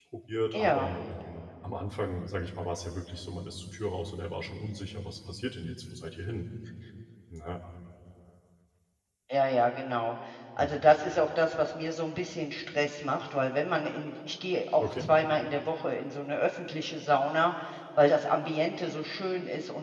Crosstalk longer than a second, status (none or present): none